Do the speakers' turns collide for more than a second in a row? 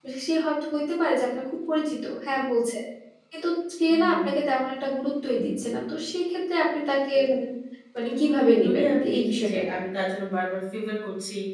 Yes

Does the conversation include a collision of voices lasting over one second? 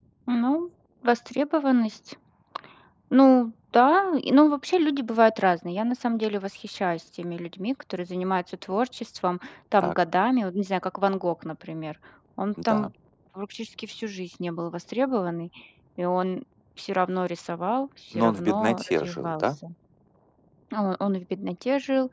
Yes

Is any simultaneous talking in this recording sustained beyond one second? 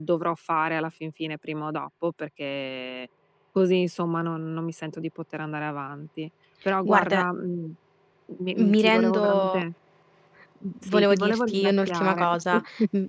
Yes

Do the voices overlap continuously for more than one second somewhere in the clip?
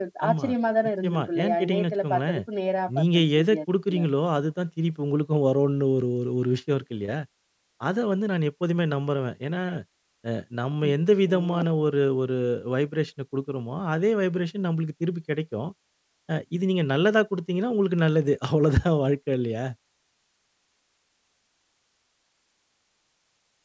Yes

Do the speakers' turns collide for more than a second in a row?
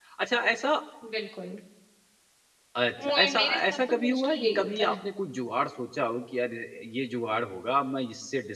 Yes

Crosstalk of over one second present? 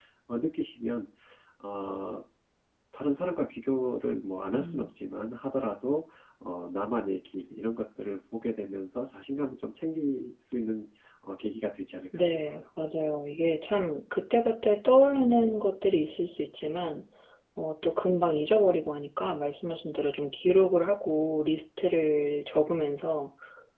No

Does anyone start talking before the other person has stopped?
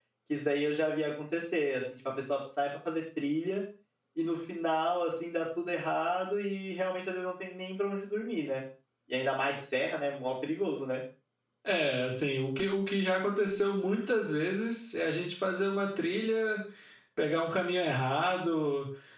No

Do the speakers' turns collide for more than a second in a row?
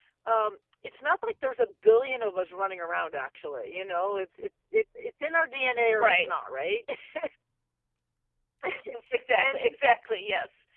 No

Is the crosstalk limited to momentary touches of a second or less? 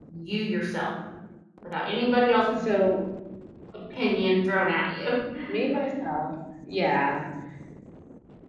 Yes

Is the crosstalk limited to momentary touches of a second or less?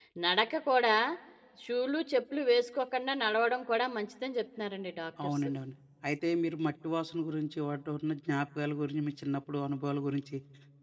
Yes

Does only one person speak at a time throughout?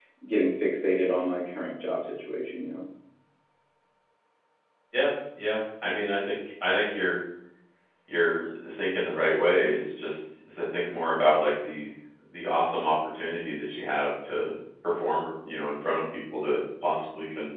Yes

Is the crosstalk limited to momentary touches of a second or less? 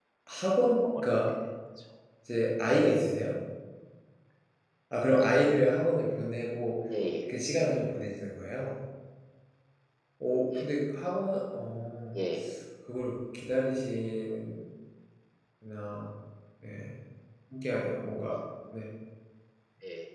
Yes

